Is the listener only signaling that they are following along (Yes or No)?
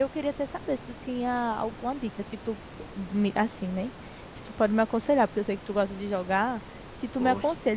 Yes